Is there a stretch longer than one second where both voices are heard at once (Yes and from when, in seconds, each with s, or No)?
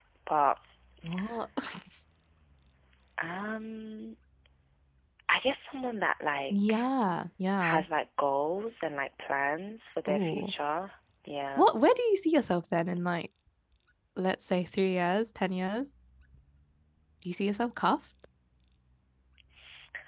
No